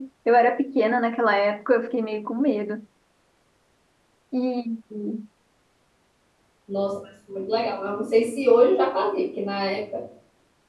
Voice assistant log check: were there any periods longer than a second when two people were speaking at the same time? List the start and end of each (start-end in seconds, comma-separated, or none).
none